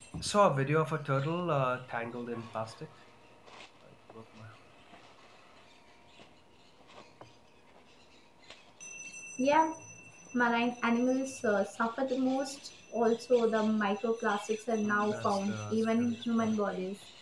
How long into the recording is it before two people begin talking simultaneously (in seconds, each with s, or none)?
14.8 s